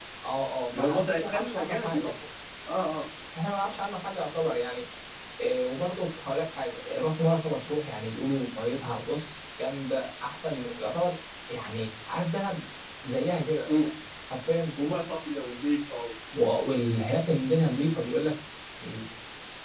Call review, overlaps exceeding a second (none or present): present